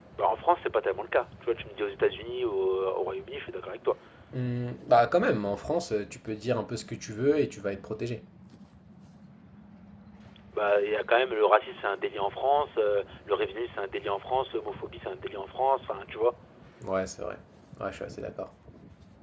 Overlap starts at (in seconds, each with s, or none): none